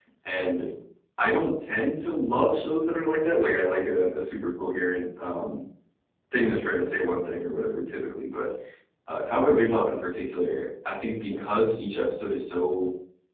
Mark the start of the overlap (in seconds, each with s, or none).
none